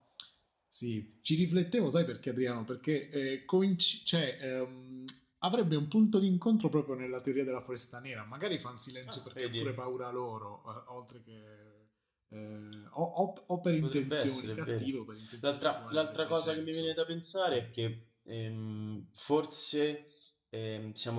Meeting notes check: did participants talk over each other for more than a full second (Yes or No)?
Yes